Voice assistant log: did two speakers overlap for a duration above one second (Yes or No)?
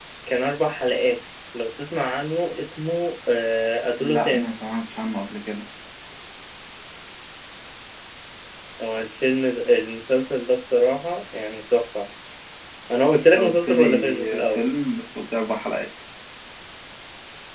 Yes